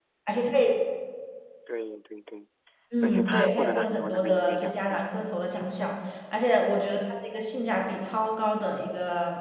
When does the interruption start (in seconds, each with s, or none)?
3.0 s